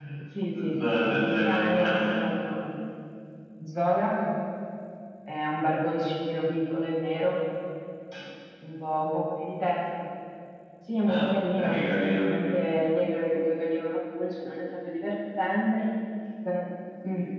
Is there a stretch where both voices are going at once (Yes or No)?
Yes